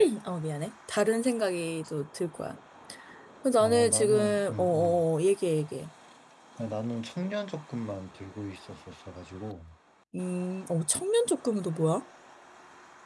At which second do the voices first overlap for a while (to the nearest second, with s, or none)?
4 s